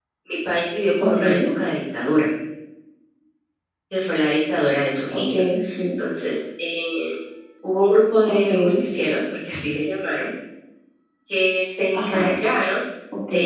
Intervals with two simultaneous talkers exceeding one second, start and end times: none

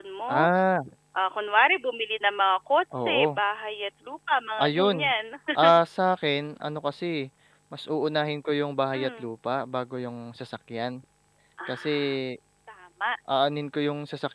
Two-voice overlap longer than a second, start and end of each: none

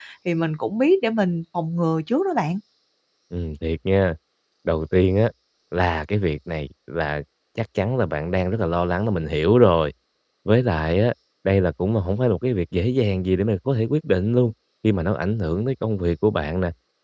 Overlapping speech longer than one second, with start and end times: none

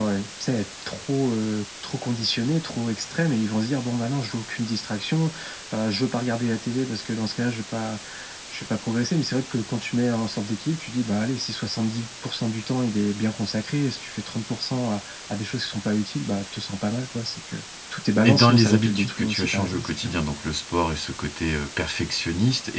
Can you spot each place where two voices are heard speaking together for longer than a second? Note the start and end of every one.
18.2-20.1

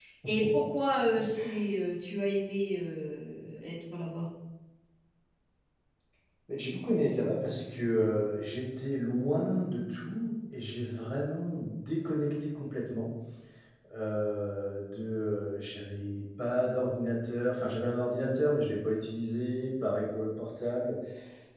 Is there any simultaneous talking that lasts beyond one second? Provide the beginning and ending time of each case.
none

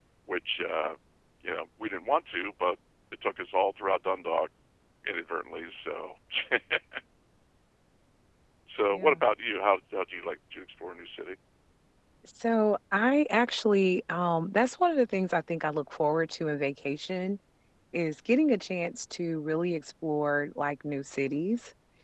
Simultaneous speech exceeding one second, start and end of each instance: none

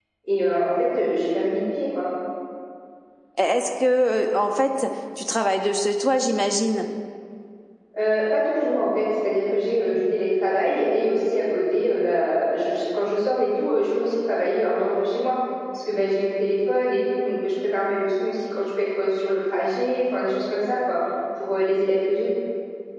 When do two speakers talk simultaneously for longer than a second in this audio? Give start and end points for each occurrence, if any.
none

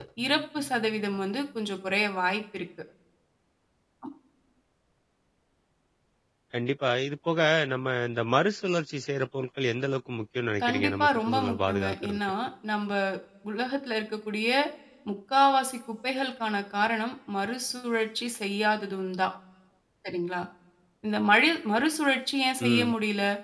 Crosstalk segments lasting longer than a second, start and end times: 10.6-12.2

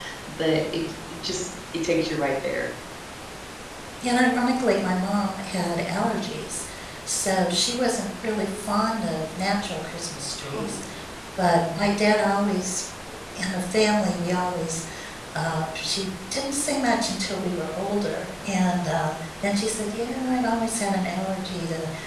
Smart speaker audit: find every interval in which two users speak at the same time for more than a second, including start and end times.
none

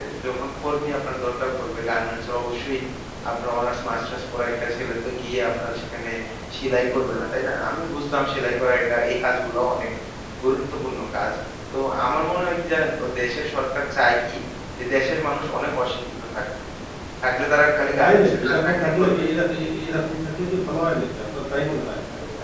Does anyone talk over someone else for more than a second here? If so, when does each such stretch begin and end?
18.0-19.2

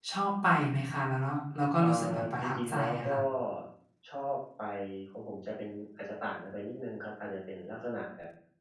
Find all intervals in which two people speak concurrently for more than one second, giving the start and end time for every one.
1.8-3.2

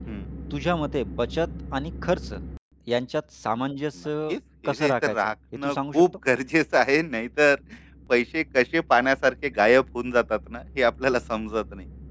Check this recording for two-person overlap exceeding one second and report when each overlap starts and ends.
4.7-6.0

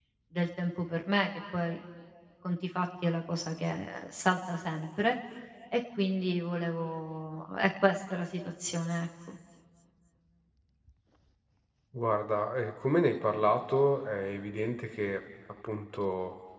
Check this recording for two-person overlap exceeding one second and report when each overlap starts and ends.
none

